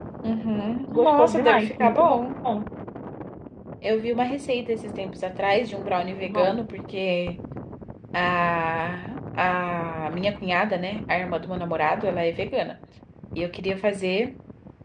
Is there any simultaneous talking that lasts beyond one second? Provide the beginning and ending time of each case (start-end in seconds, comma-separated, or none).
0.9-2.2